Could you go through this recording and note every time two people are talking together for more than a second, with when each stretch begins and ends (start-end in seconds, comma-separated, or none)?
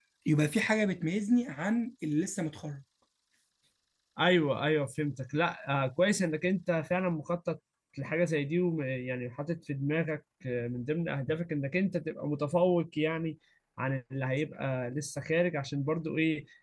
none